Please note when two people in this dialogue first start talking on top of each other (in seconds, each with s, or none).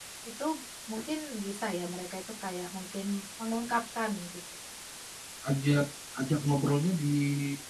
none